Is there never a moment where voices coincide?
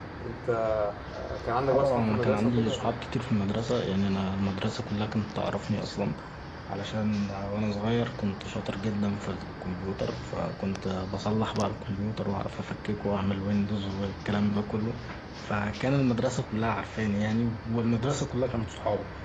No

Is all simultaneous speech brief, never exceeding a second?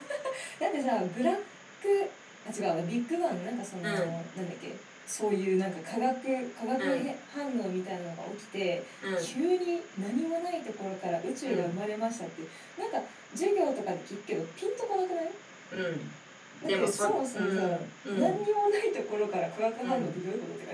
No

